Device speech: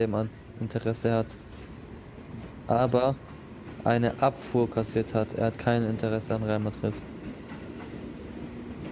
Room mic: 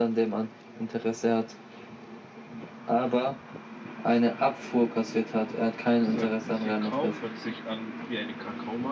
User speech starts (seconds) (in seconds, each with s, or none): 5.9 s